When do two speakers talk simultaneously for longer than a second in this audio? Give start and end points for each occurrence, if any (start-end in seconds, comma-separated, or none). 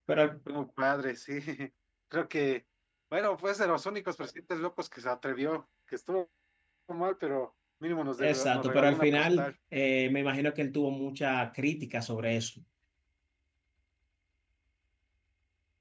8.2-9.5